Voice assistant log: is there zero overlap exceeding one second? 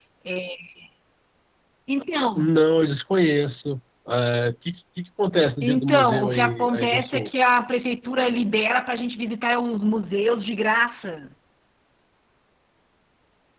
No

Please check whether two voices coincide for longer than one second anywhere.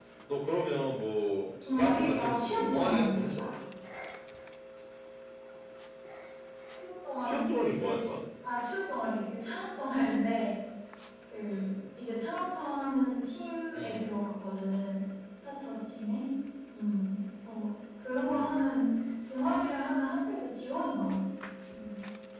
Yes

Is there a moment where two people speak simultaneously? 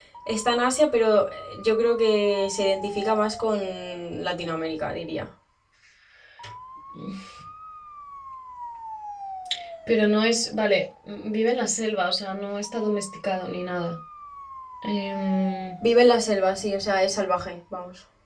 No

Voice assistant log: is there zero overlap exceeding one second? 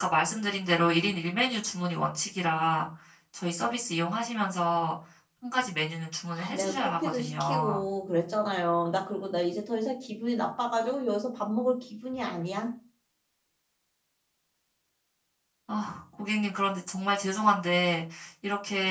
No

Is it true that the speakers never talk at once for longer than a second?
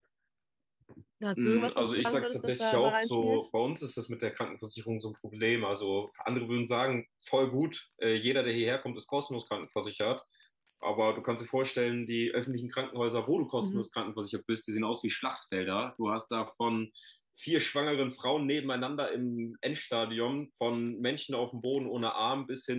No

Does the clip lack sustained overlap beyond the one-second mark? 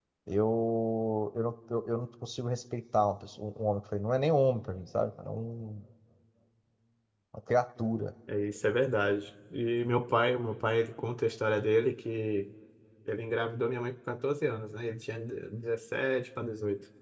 Yes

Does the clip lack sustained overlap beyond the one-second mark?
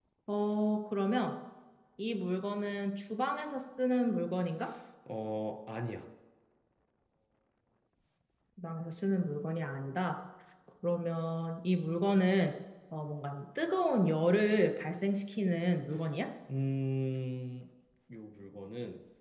Yes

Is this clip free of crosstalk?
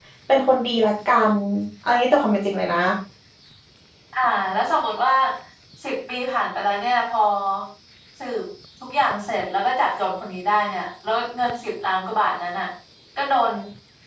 Yes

